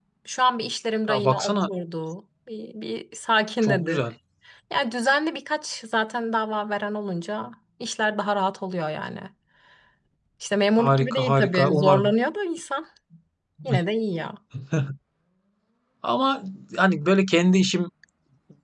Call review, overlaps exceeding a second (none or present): present